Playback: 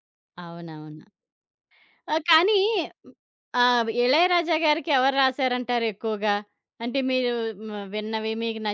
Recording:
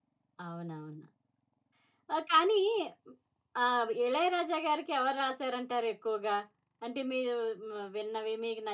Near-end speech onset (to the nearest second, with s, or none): none